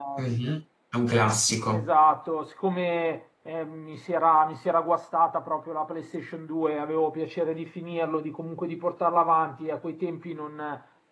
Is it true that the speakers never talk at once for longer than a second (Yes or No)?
Yes